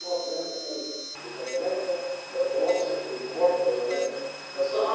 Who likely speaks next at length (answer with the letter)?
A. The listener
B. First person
A